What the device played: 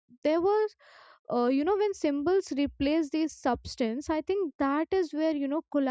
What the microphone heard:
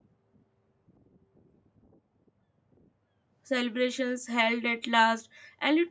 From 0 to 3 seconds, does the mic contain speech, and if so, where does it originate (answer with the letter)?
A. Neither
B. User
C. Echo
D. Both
A